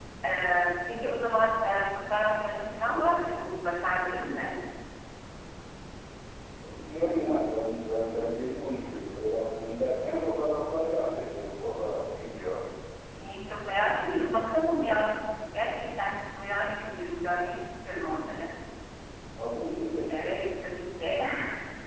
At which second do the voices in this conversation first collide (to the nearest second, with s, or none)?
none